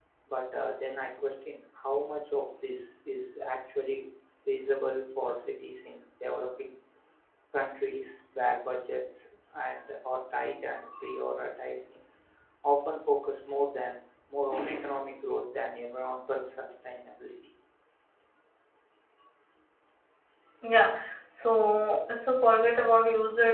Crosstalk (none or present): none